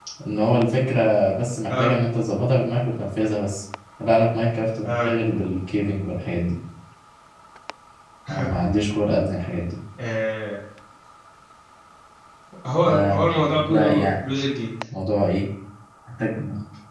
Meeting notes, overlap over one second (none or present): present